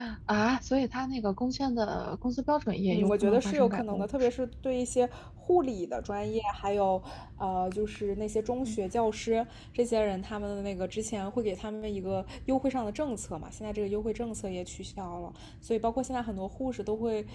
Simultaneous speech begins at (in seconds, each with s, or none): 2.9 s